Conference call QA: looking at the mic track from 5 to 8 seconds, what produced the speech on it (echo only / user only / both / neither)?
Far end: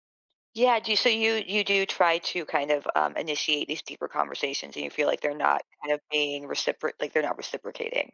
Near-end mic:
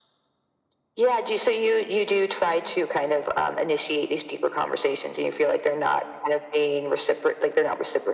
echo only